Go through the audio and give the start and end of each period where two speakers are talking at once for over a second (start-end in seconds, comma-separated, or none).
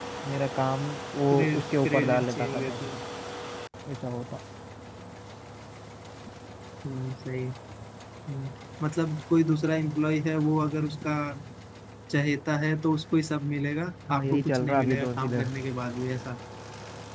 1.3-2.7, 14.1-15.5